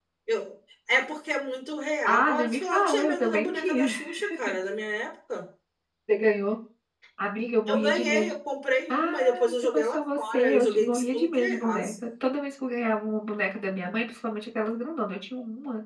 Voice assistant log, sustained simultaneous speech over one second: present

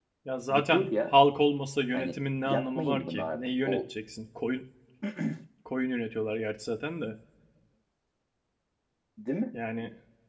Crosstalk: present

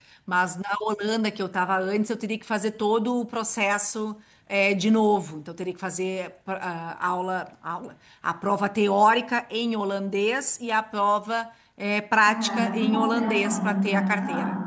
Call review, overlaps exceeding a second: present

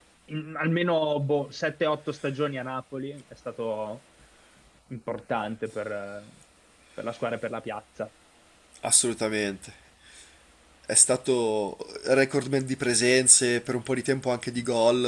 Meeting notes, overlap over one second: none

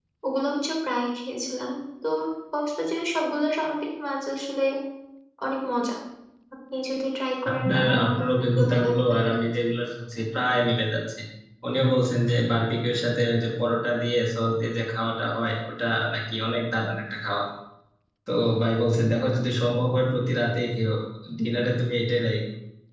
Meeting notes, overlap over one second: present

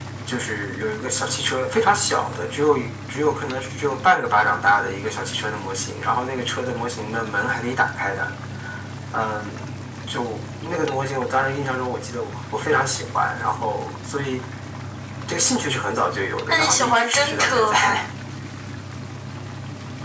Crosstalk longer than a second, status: present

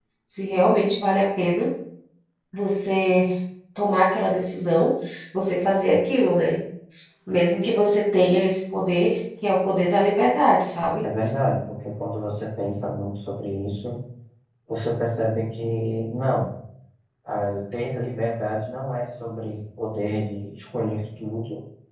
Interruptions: none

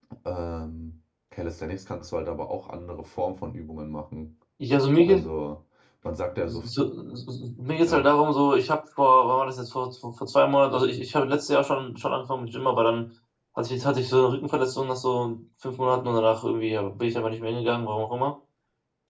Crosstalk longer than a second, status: none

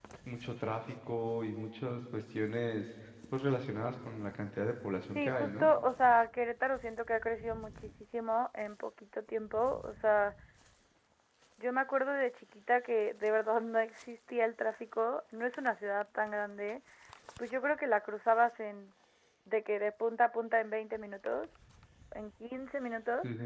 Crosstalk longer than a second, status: none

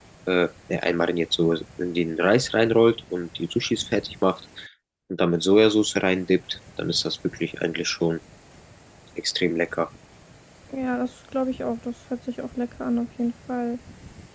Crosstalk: none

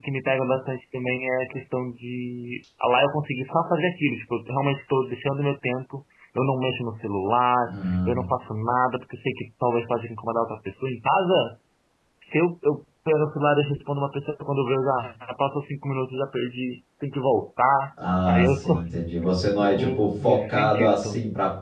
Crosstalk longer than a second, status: present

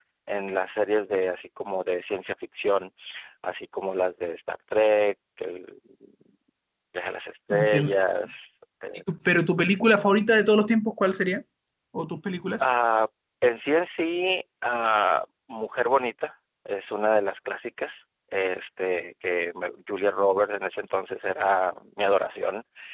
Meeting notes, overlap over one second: none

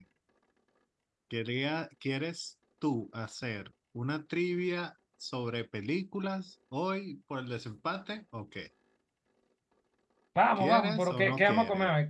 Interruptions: present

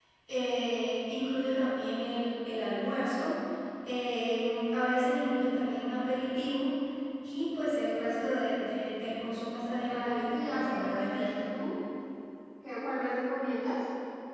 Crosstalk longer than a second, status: present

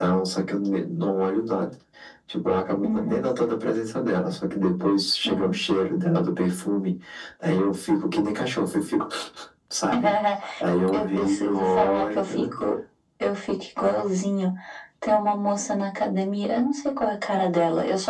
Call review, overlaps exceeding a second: present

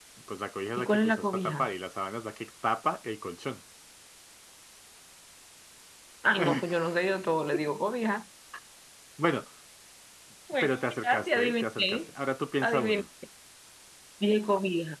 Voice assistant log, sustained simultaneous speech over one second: present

